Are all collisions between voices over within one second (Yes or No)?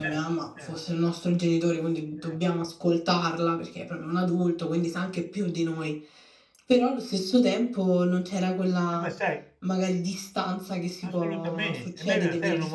No